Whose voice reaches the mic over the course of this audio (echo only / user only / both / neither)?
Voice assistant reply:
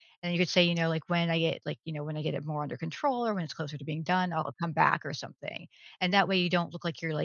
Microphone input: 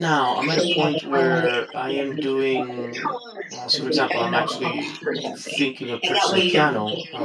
both